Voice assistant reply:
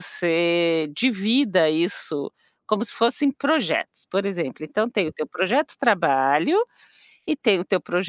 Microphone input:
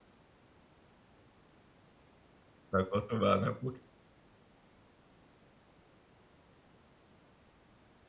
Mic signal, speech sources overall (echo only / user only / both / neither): user only